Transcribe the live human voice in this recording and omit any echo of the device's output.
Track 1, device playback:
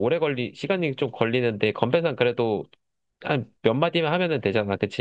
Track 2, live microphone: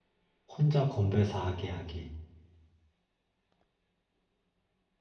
혼자 건배사 하게 하기.

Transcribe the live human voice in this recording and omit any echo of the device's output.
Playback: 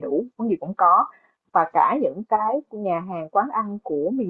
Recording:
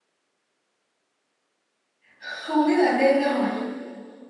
không biết là nên hỏi

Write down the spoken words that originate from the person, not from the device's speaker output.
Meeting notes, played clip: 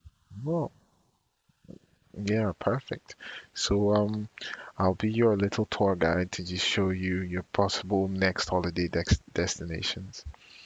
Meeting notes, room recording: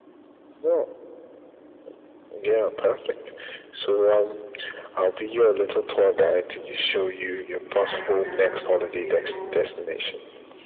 Yeah, I see that. That's beautiful.

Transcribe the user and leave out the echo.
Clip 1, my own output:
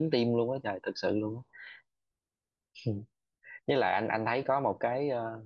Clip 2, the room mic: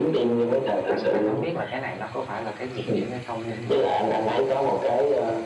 anh anh không biết là cái này nó có phải là cái nhược điểm hay không nhưng mà

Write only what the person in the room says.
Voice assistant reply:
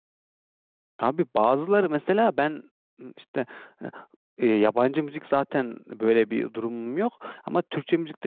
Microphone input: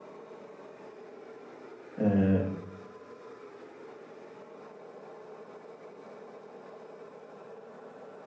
Ee,

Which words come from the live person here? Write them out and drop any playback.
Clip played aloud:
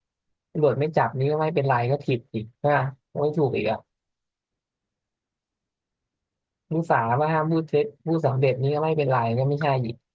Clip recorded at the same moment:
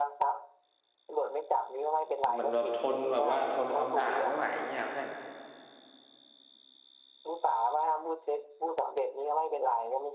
อ๋อมันแบบทนแบบว่าทนคำด่าไม่ไหวอย่างเงี้ยเพื่อน

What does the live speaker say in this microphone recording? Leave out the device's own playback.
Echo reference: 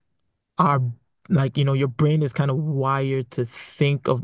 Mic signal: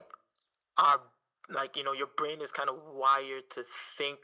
none

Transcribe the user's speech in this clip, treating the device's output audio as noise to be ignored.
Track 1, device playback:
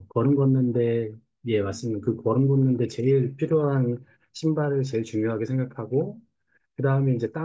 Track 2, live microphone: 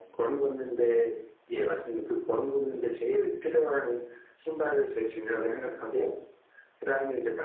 어, 이게

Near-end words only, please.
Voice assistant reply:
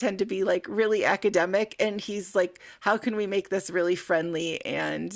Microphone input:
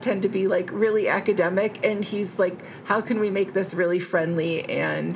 none

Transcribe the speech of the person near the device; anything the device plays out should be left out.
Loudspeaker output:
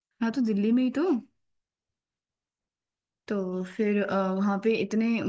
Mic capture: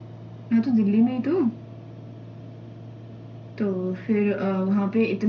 none

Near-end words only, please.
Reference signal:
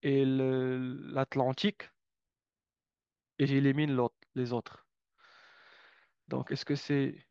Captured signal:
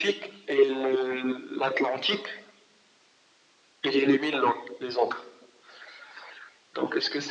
none

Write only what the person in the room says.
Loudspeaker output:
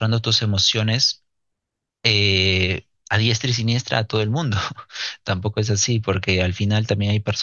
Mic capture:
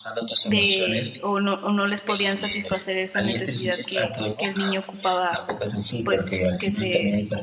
de o no, o no les podían satisfacer esa necesidad que, que el niño ocupaba, pues que se,

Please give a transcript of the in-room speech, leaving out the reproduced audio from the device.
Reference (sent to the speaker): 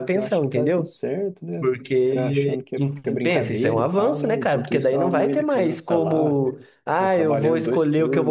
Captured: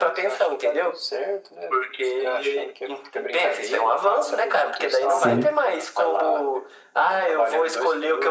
Sim.

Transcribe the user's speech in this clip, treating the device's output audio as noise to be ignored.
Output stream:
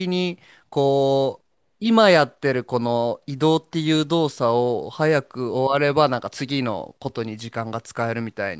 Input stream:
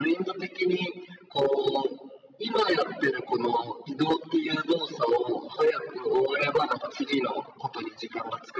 none

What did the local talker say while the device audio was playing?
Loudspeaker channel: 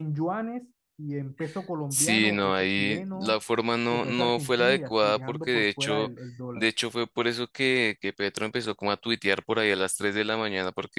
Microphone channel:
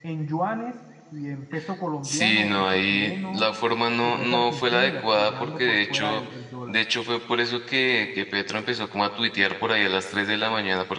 none

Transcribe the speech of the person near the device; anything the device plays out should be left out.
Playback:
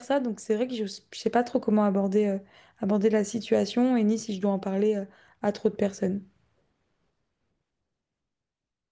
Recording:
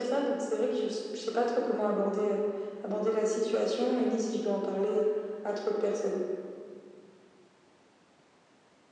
none

